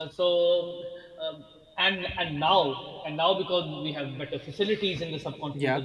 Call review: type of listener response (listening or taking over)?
listening